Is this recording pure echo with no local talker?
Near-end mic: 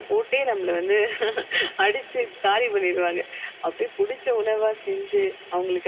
Yes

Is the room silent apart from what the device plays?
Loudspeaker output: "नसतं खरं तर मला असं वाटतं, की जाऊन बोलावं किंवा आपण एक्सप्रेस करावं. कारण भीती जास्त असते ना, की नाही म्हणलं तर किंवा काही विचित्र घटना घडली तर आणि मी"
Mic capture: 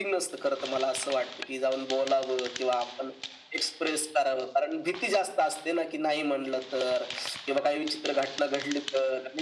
Yes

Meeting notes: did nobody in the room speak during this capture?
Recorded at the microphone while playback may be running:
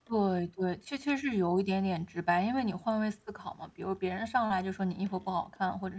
No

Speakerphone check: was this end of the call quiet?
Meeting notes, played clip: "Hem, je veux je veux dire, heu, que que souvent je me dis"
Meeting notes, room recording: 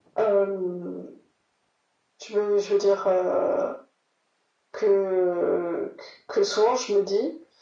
Yes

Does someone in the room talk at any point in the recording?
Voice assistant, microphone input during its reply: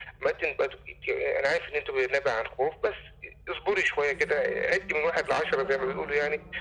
Yes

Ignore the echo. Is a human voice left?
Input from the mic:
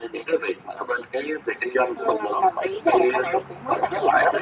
No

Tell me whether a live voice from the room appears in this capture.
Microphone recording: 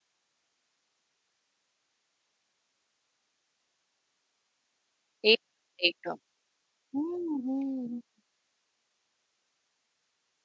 Yes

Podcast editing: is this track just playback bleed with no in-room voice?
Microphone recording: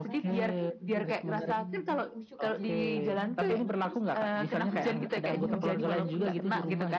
No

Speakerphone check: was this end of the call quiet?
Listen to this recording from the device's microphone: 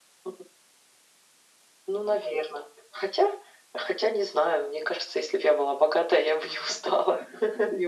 Yes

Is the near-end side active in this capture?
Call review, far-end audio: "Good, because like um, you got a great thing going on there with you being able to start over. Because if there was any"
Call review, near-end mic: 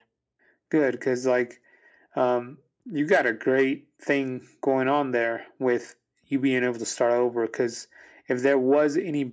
No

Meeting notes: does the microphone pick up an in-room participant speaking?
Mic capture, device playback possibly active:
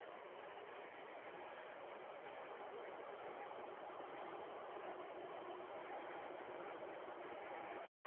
No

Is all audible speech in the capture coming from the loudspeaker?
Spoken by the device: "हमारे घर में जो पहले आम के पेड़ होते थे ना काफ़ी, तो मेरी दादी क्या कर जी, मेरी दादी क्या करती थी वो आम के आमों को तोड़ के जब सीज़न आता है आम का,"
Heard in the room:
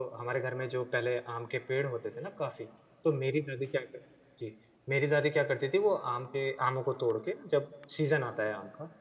Yes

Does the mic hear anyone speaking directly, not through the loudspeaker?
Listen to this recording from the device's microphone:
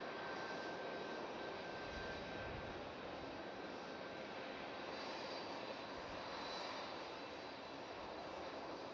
No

